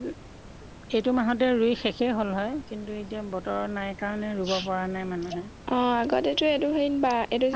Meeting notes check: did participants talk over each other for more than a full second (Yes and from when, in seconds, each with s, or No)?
No